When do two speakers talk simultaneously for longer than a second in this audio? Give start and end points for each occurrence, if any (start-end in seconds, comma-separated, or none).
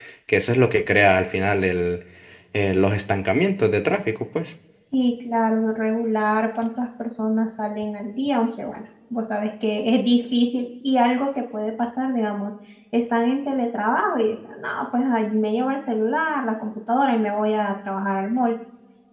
none